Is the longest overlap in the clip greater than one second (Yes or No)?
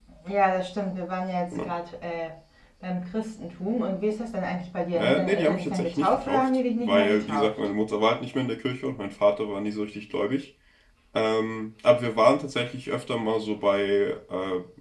Yes